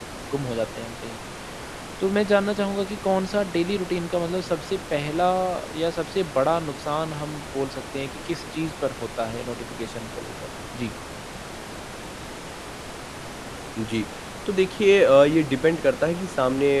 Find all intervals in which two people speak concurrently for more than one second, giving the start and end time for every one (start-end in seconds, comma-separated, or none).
none